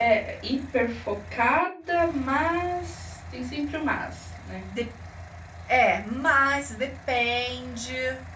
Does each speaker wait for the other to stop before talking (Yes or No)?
Yes